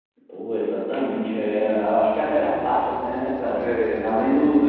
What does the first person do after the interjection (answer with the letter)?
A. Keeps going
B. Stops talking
A